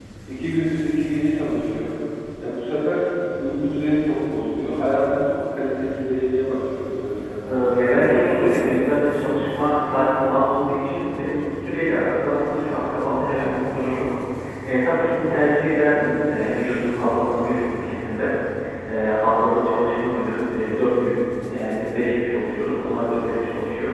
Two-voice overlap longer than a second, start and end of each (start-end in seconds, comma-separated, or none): 7.5-9.5